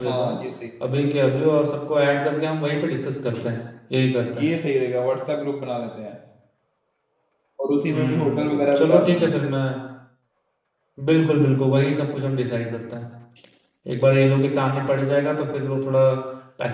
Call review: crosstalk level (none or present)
present